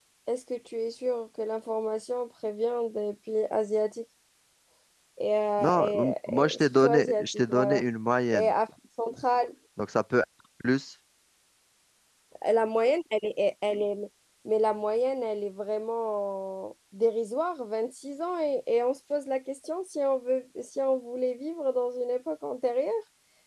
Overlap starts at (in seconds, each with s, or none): 5.6 s